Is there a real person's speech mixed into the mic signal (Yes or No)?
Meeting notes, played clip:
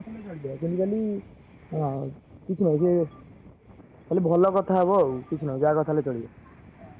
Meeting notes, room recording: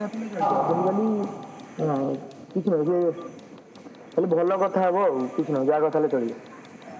Yes